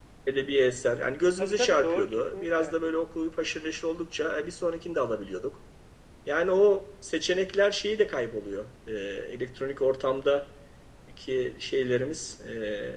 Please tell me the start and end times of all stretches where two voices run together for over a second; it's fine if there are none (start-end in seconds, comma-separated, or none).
1.4-2.8